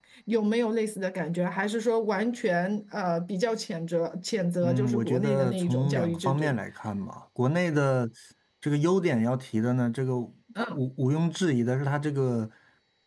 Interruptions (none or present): present